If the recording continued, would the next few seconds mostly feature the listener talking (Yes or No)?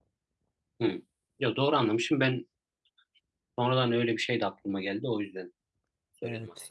Yes